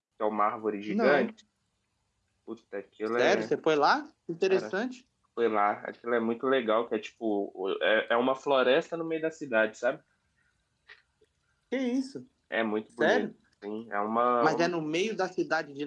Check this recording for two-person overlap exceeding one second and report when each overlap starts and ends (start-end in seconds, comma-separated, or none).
none